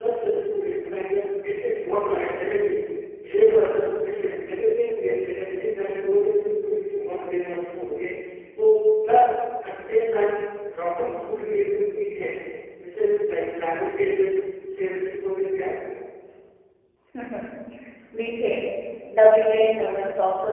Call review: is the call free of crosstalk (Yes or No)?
Yes